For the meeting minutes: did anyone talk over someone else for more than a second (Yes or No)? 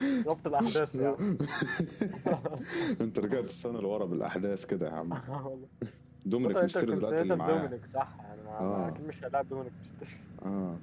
Yes